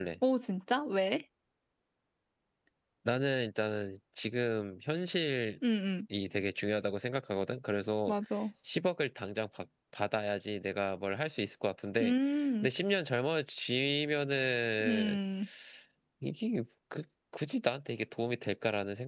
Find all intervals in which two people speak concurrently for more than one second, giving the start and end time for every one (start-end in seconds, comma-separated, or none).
none